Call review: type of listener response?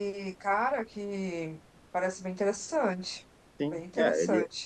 taking over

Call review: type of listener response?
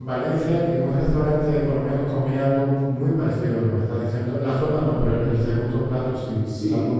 taking over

